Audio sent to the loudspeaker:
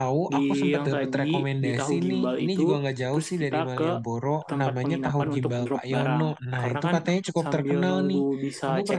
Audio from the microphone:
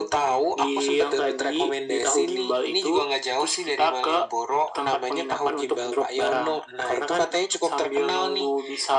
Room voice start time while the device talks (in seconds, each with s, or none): none